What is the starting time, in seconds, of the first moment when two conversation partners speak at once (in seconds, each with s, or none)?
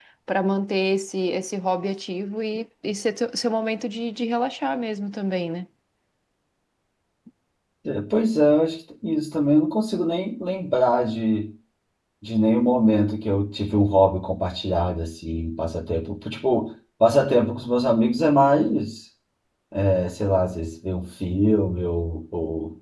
none